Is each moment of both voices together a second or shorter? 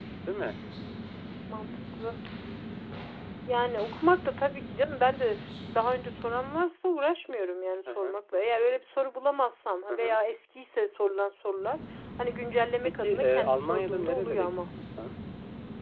No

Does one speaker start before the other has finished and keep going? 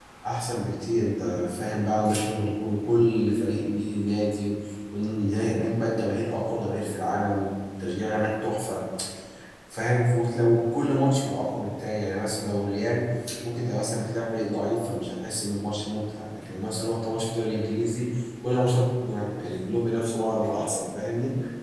No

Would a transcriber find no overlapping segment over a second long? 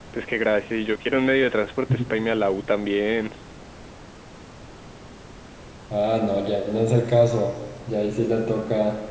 Yes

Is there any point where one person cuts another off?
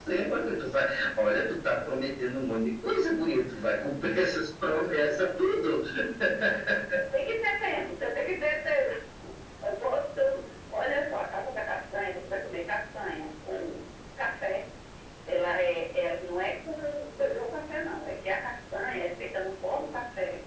No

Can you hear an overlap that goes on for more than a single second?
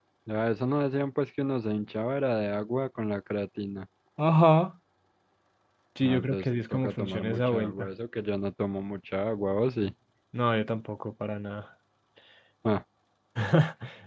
Yes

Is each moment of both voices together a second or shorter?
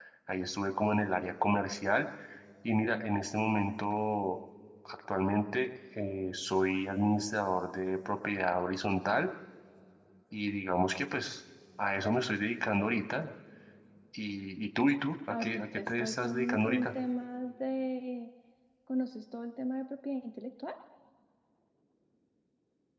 No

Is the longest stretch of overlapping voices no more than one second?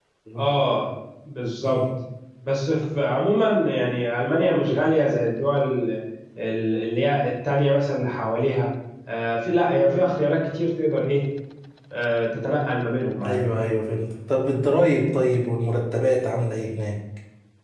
Yes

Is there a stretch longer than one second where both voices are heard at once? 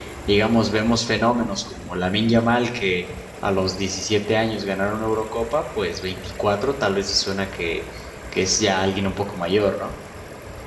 No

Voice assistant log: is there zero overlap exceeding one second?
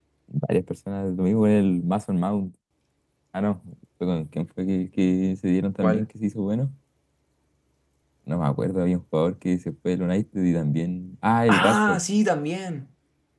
Yes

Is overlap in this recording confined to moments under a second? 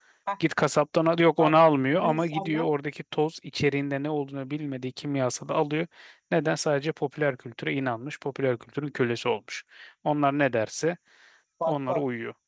No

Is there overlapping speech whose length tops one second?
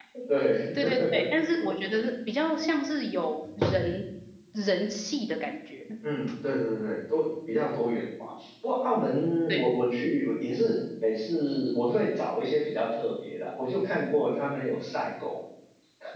No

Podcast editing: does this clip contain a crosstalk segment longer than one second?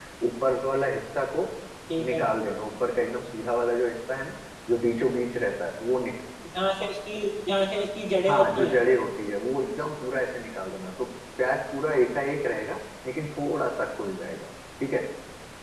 No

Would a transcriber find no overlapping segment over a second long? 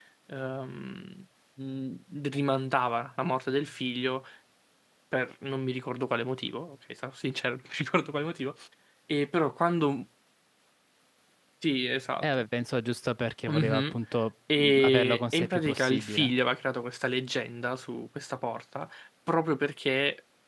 No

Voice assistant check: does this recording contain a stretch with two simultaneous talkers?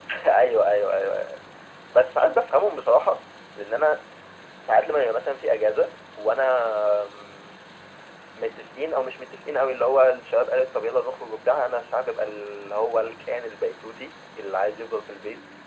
No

